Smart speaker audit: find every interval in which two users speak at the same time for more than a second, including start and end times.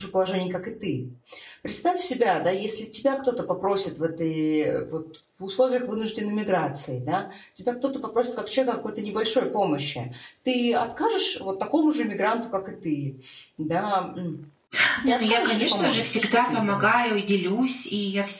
15.0-17.0

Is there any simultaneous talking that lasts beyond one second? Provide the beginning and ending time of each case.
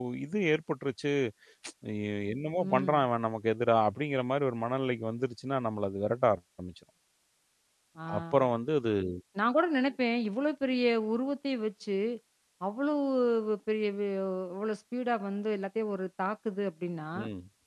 none

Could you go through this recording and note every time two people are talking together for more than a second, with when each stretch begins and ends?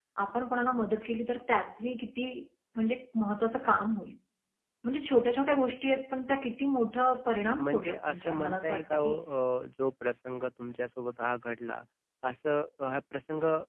7.6-9.2

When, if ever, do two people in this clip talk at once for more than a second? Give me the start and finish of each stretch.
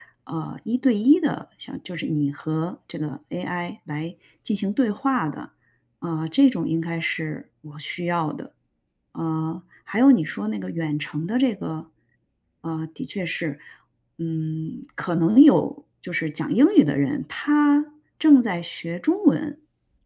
none

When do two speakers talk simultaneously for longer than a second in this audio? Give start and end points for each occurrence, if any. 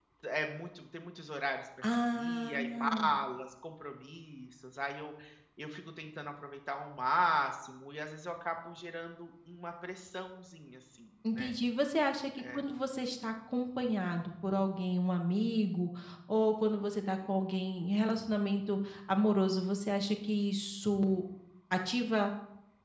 1.8-3.1

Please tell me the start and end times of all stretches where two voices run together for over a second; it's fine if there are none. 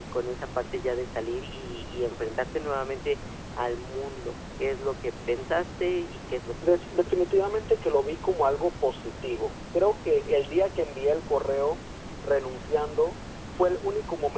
none

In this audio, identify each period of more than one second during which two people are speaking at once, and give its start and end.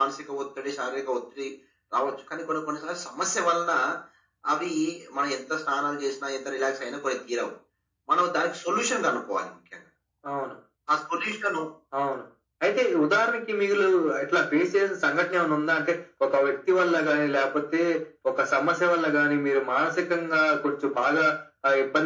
none

